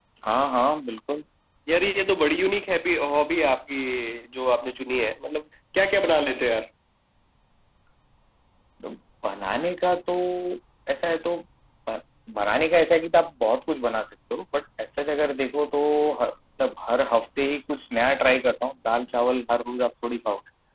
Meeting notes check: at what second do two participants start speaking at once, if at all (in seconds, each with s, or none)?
none